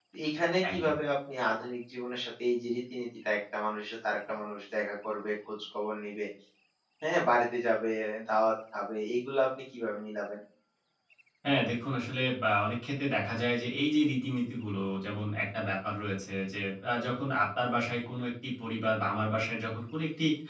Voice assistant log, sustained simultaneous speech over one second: none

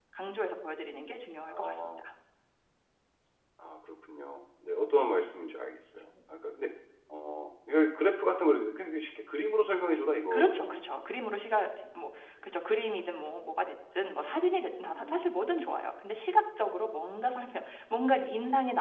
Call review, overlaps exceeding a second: none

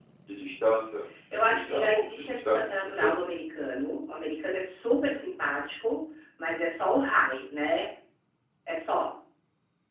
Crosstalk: present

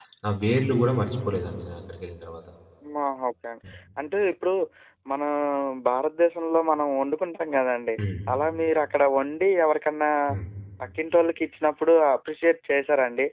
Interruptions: none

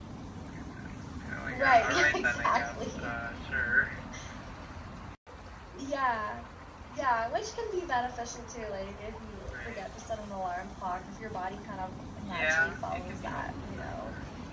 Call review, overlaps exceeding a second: present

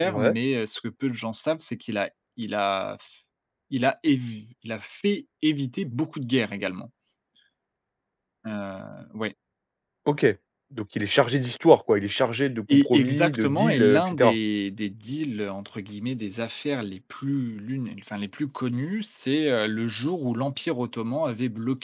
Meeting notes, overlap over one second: present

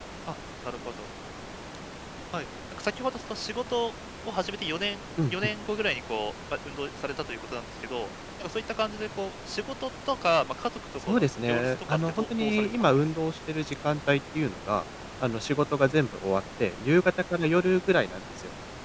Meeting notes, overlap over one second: present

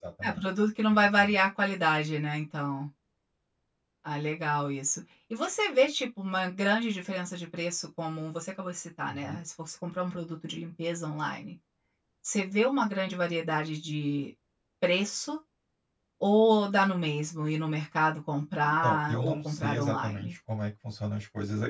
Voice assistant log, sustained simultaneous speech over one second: present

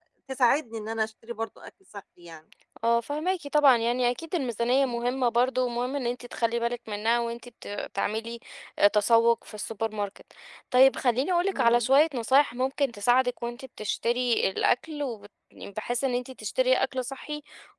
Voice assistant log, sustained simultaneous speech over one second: none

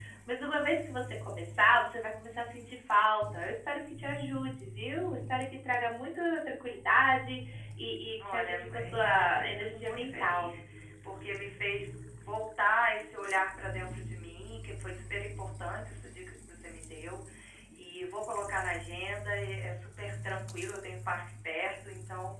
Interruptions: present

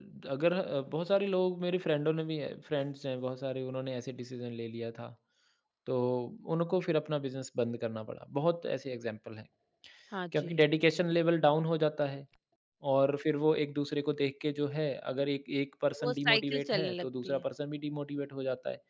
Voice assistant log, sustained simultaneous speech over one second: present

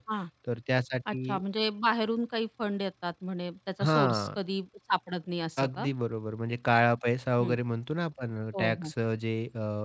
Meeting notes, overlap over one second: none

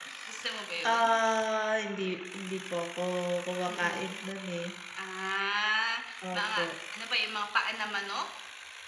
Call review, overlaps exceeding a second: none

